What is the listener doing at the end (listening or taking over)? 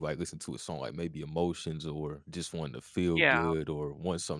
listening